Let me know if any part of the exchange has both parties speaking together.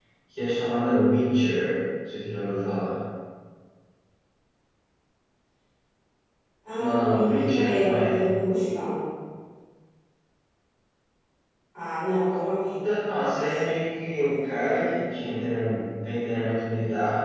Yes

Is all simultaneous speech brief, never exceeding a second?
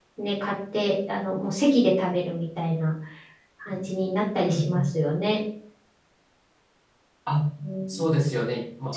Yes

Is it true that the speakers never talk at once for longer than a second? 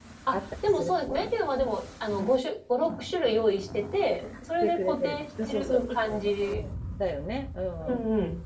No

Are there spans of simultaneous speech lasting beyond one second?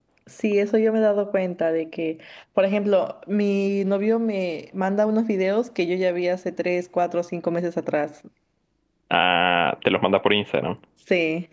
No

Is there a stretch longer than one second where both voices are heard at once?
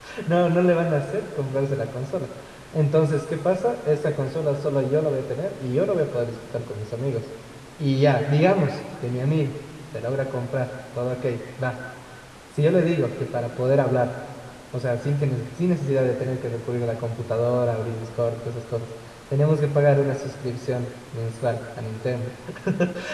No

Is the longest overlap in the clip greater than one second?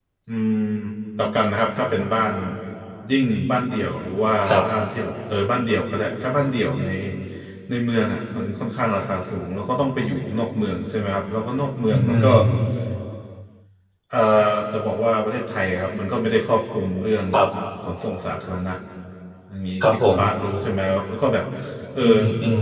No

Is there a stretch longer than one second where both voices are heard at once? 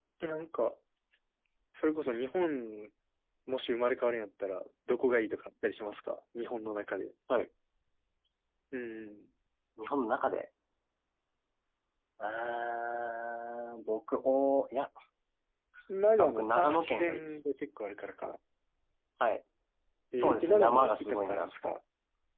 Yes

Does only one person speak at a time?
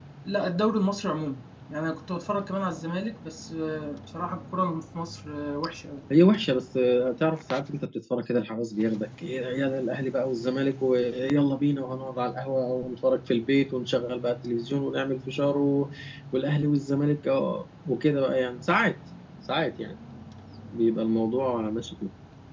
Yes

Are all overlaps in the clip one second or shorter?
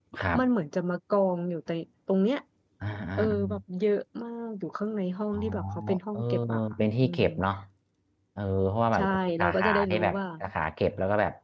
No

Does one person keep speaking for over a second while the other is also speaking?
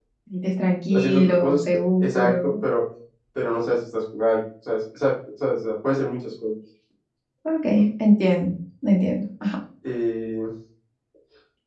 Yes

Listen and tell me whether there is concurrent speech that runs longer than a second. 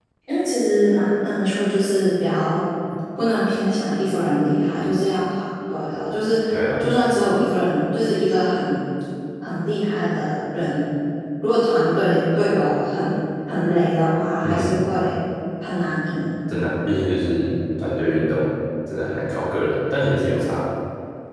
No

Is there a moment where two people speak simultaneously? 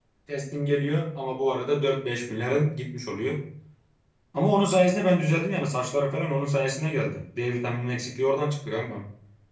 No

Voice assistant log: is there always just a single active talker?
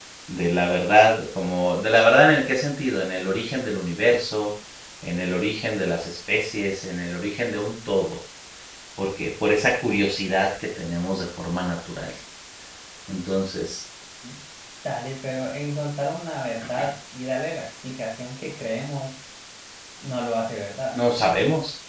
Yes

